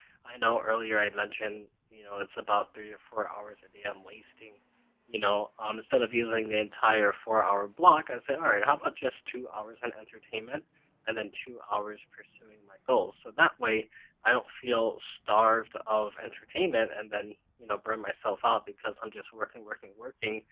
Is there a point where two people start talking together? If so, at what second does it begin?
none

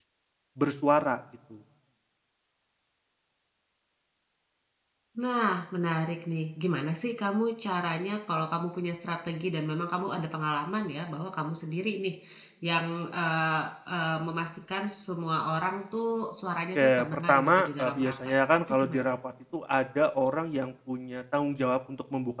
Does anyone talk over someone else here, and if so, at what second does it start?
16.8 s

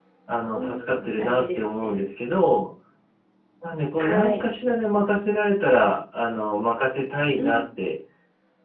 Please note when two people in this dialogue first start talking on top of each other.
0.5 s

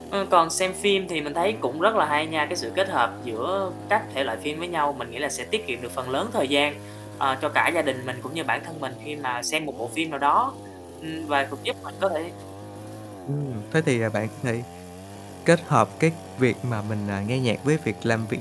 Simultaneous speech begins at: none

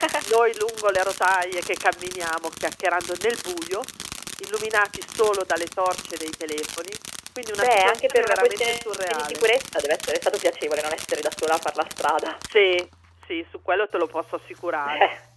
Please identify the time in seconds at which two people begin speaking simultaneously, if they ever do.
7.6 s

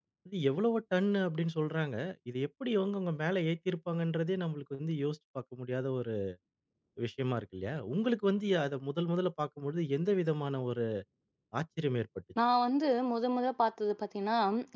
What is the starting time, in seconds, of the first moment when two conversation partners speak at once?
none

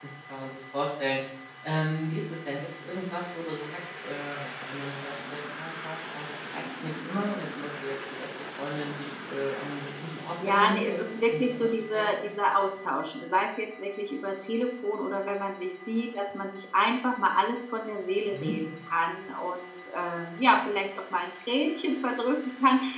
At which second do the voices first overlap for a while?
10.4 s

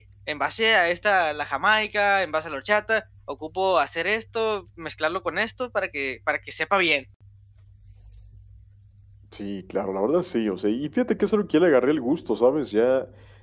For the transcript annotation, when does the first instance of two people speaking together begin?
none

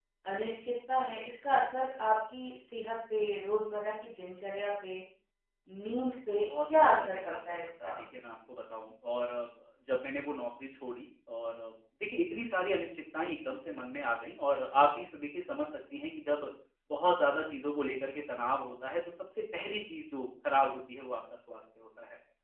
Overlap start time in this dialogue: 6.3 s

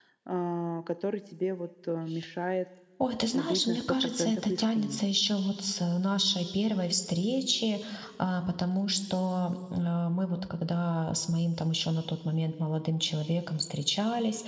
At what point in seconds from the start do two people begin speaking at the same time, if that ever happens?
3.3 s

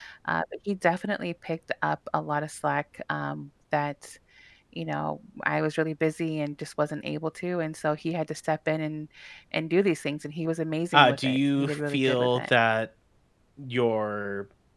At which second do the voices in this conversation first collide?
10.9 s

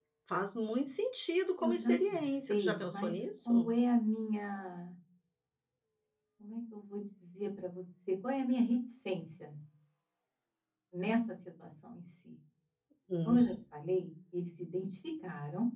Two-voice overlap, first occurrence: 1.6 s

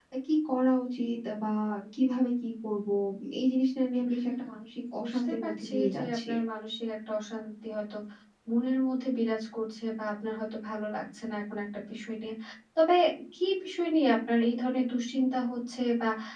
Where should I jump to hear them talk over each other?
5.0 s

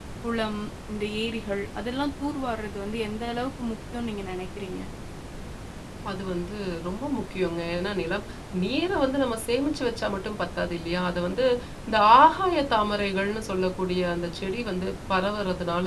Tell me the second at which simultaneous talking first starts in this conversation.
none

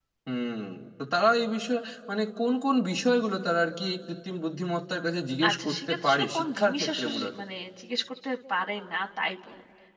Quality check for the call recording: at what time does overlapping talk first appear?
5.4 s

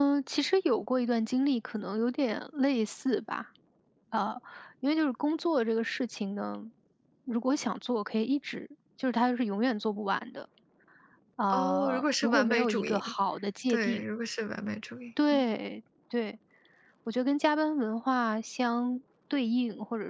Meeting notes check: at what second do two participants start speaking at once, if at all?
11.5 s

